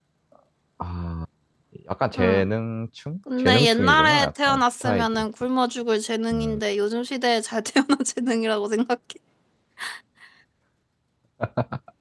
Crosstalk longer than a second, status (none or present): present